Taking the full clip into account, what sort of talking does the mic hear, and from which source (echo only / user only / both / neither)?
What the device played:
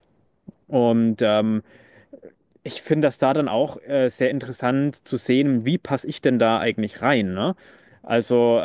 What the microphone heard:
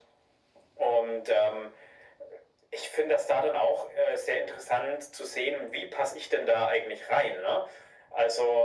echo only